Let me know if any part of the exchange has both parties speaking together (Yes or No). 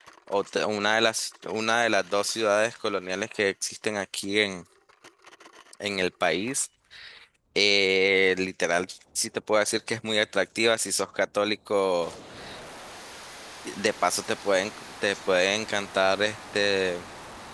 No